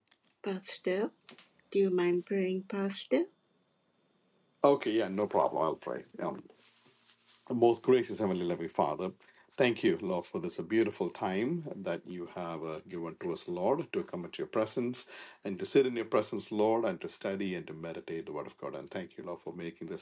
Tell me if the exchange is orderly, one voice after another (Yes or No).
Yes